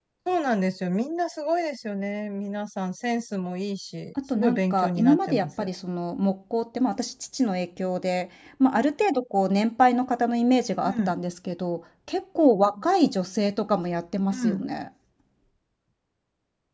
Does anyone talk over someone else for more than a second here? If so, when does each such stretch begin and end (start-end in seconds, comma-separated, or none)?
4.4-5.7